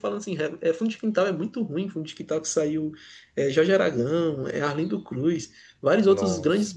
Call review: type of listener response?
listening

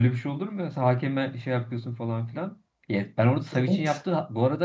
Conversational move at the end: listening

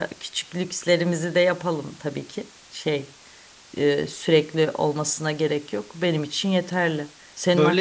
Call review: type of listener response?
listening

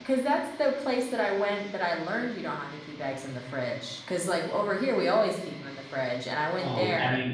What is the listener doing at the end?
taking over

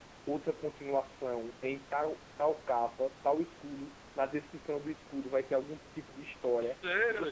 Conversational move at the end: taking over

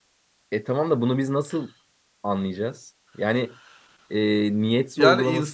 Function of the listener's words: taking over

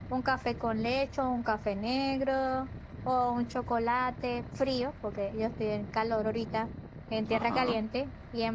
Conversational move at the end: listening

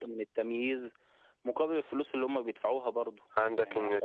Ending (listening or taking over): taking over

